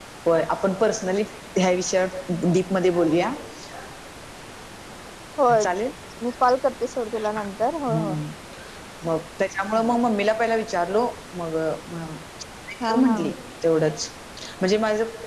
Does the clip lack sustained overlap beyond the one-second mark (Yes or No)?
Yes